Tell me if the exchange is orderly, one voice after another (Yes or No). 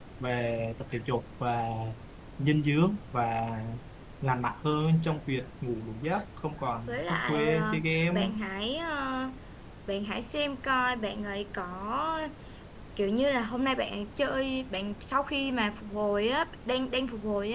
No